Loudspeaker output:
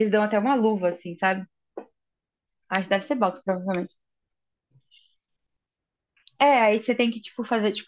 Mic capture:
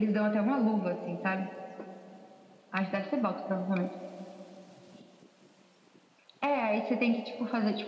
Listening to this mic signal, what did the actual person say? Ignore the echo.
none

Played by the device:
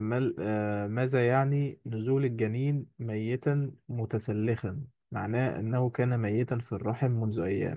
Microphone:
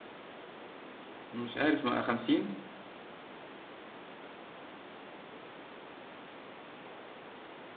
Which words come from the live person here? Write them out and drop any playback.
مش عارف ما 50

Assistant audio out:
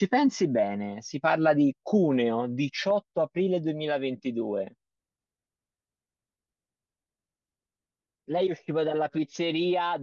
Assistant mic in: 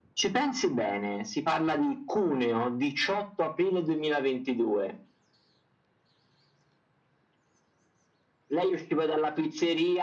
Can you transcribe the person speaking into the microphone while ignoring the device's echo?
none

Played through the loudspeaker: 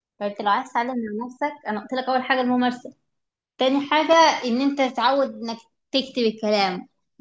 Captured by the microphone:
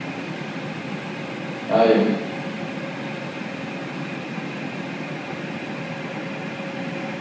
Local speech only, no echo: ايوه

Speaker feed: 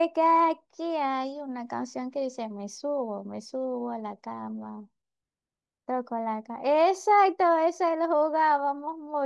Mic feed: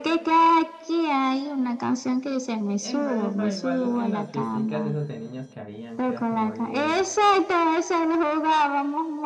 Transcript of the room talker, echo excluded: Eh, epa, epa, igual en las fiesticas esas de niños que habían, que era como de.

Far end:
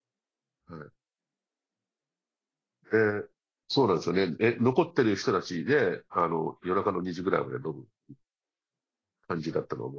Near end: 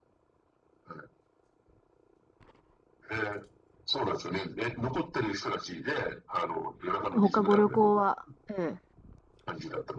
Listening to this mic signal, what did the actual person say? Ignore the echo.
あと、他ご旅行は、ええ、

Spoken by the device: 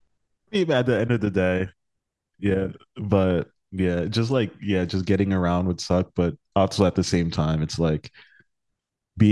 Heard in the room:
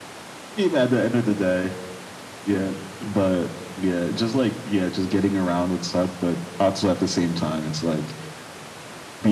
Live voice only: none

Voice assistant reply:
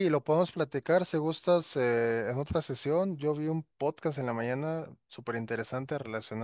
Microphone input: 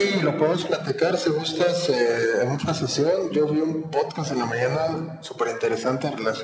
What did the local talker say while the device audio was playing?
none

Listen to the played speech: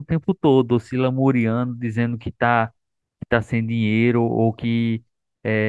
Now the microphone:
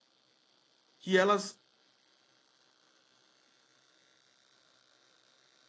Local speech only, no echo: que elas.

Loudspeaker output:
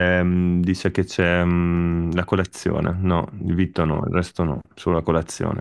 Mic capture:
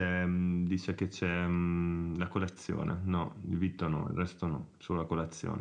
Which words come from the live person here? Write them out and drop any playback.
none

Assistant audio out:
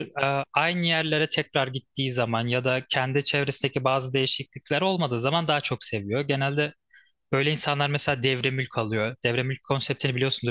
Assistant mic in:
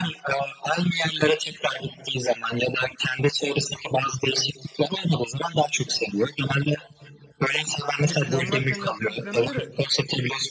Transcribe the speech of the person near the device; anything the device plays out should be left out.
Hani planlarken yaptığım plana göre

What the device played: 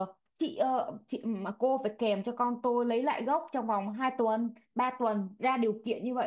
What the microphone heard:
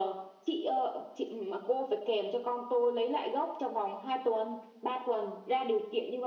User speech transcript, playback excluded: none

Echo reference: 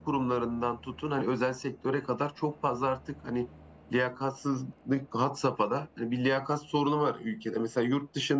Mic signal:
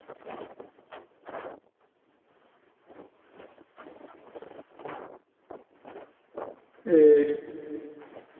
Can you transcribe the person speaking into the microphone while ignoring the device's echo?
e,

